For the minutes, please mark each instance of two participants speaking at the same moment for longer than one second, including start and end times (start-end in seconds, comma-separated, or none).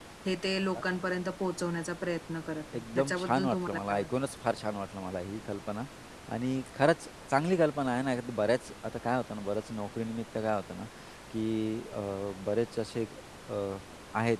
2.7-4.1